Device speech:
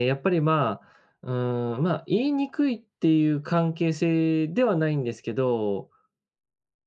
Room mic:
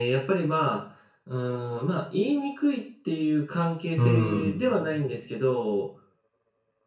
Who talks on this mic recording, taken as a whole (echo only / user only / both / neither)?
both